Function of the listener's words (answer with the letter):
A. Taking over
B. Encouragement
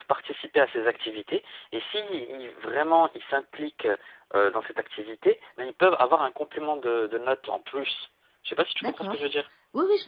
A